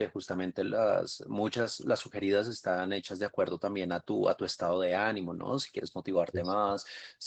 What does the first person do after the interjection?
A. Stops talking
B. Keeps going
B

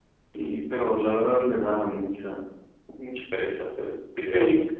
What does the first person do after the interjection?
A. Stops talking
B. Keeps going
A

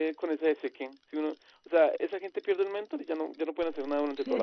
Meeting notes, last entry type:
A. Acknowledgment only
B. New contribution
B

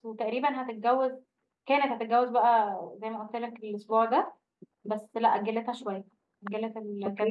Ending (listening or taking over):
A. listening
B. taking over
B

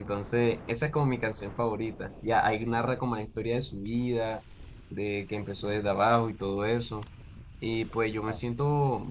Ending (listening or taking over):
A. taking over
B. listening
B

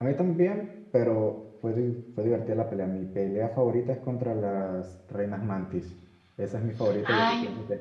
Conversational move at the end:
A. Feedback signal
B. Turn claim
B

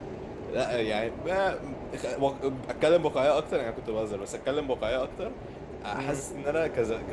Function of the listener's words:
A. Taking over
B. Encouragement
B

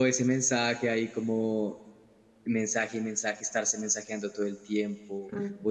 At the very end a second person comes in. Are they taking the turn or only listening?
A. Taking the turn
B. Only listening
B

